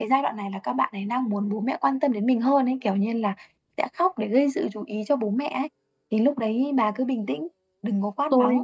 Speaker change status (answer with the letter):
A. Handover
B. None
A